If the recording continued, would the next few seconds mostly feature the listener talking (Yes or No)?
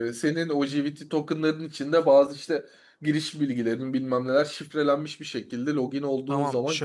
Yes